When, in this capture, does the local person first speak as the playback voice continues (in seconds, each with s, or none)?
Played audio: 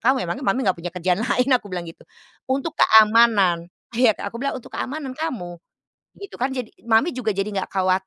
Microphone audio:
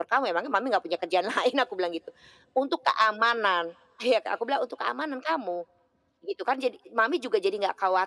none